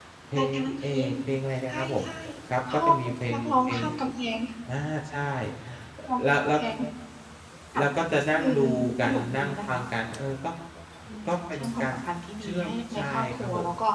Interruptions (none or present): present